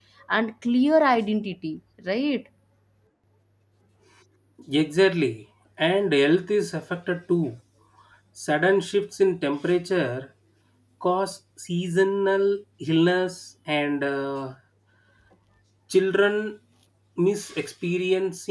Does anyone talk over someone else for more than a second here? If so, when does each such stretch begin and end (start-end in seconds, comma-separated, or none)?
none